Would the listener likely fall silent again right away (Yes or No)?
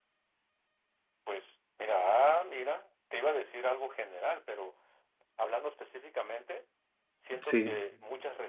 Yes